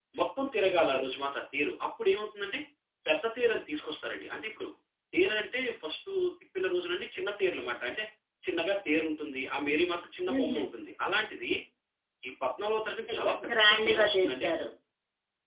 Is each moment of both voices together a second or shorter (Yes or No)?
No